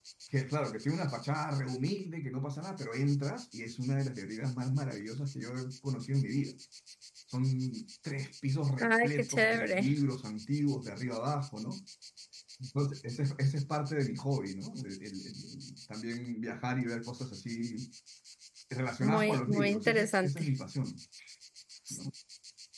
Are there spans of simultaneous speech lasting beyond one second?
Yes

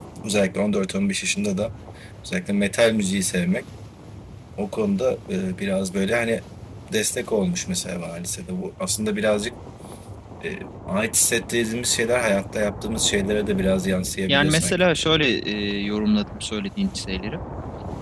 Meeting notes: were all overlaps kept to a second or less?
Yes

